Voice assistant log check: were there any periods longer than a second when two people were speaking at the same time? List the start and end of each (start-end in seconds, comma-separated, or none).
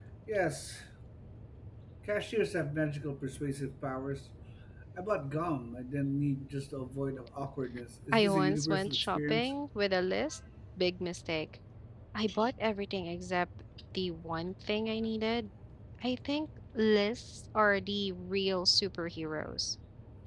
8.1-9.5